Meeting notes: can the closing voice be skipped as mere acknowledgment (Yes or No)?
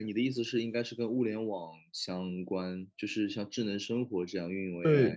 No